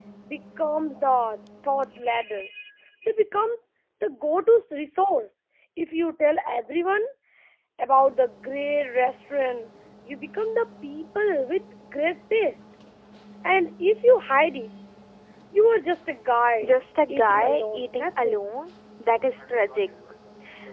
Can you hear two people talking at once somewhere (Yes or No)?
Yes